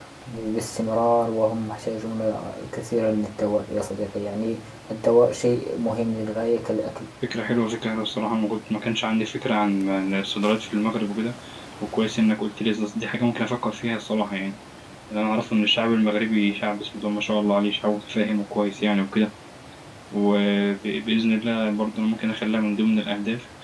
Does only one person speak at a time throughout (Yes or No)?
Yes